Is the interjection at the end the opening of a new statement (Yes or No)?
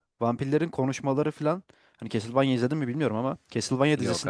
No